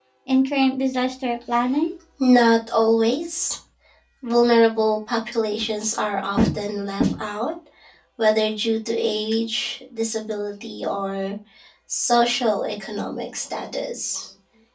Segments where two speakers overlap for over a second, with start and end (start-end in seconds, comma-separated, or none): none